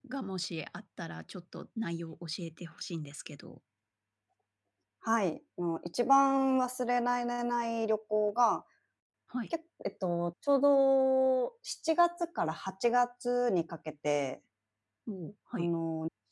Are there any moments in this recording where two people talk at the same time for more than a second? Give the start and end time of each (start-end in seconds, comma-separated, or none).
none